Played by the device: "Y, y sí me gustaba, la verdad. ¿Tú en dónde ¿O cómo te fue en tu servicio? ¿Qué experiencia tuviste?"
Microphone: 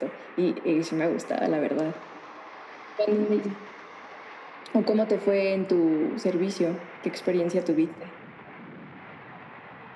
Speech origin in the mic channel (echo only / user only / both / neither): echo only